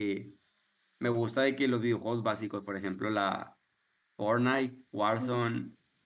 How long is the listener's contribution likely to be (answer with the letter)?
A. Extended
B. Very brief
B